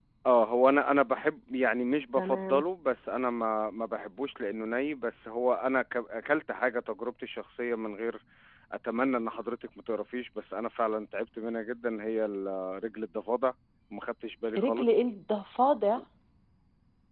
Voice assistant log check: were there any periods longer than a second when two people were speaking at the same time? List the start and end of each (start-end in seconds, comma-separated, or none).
none